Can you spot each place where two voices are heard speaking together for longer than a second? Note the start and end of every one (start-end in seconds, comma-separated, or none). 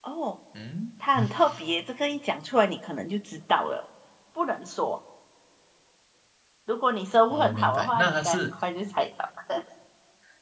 7.3-8.5